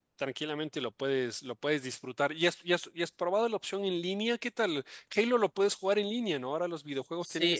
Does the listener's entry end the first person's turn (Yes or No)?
Yes